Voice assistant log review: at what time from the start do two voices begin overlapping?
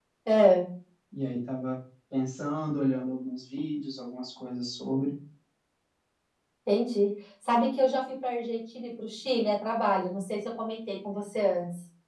none

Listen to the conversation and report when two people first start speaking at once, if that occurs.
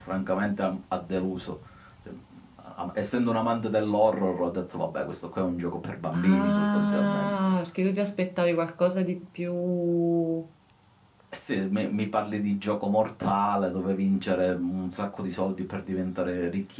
6.1 s

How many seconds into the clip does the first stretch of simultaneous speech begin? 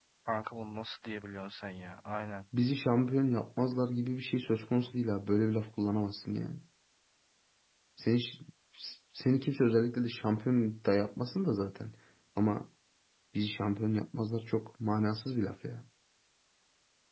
none

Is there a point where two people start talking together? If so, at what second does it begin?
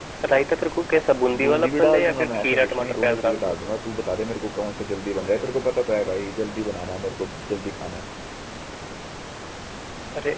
1.3 s

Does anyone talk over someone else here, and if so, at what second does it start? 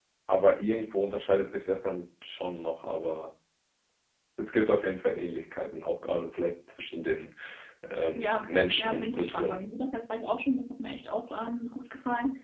8.2 s

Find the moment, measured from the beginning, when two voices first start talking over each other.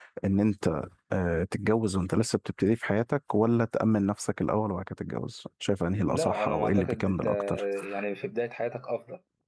6.1 s

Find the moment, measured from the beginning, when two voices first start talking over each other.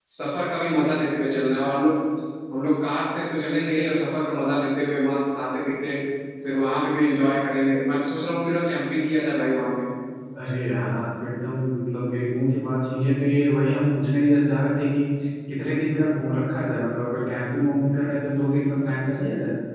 none

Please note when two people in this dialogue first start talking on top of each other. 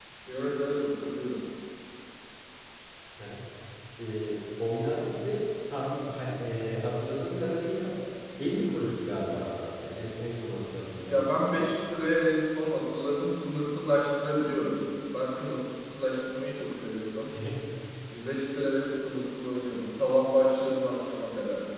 none

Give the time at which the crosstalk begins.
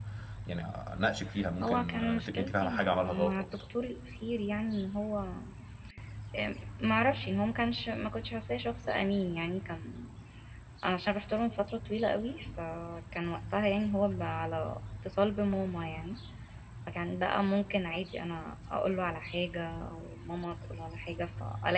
1.6 s

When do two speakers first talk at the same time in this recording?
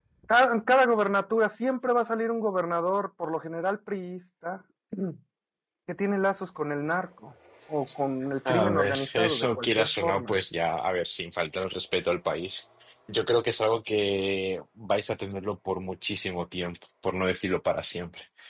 8.5 s

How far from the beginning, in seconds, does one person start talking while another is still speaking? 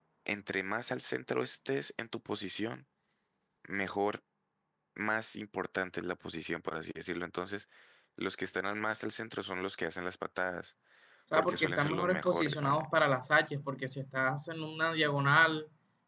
11.4 s

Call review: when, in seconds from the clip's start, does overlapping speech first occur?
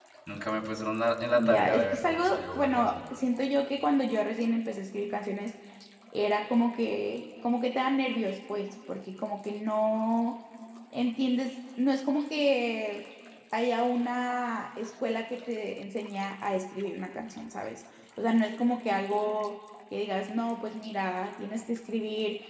1.3 s

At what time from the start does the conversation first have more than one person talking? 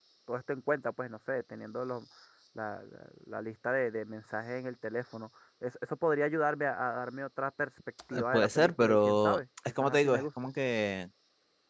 8.1 s

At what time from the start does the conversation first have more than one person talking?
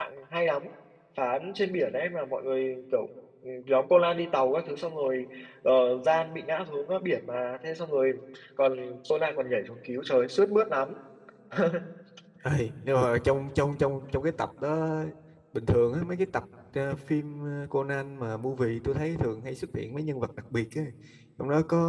none

